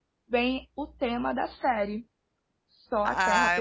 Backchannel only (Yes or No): No